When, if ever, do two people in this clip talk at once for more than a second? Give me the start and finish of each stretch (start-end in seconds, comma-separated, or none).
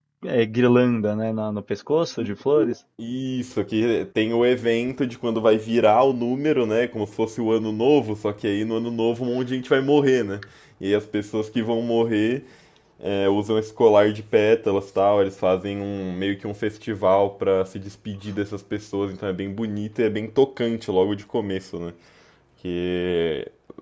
none